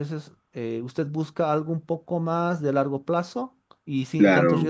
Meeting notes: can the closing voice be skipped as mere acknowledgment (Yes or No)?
No